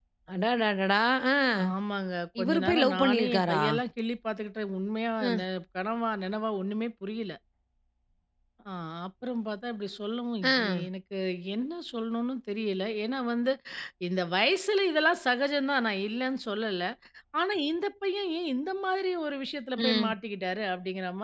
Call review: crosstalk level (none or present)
present